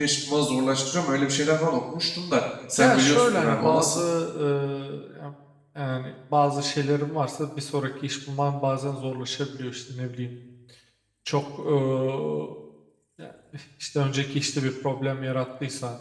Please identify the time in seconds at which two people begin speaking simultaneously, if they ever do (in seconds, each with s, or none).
2.8 s